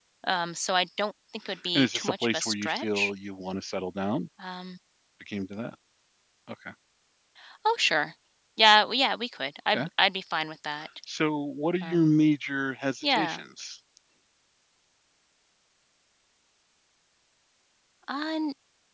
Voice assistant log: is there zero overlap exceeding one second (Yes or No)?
No